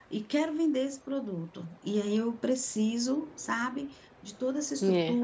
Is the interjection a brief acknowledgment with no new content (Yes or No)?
Yes